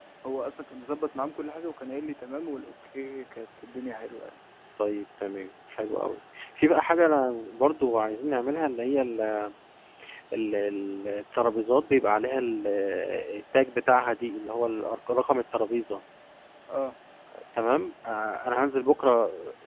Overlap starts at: none

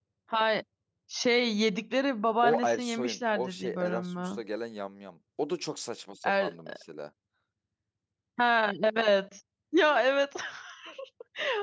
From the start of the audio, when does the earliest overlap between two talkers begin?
2 s

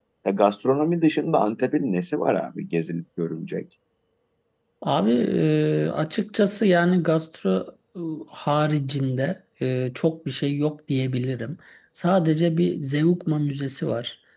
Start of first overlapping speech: none

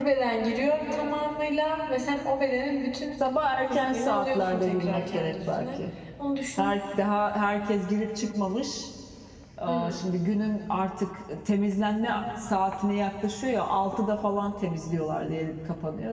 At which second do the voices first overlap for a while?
4 s

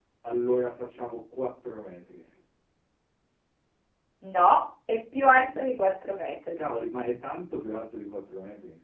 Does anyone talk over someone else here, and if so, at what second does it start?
none

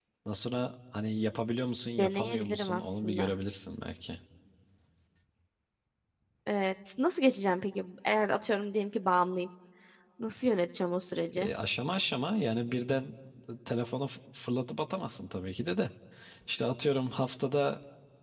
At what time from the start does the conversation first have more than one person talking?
2 s

